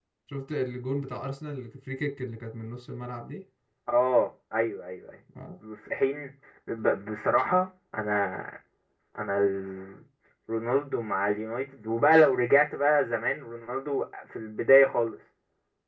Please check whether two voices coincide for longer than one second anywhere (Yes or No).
No